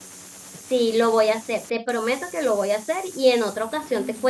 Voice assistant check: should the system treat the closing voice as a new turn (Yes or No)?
No